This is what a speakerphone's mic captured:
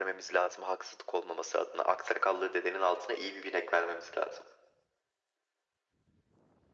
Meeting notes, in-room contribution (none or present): none